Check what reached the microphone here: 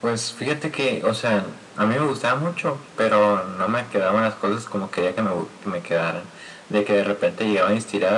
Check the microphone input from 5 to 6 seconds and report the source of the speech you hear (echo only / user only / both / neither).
echo only